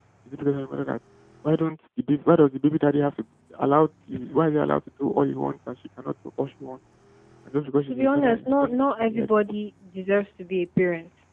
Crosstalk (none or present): present